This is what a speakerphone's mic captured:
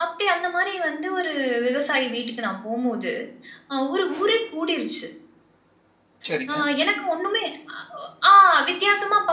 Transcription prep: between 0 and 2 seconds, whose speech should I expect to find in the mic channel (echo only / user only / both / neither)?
echo only